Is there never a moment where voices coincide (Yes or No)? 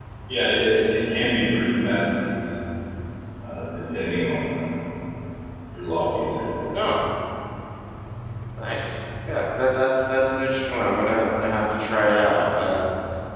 Yes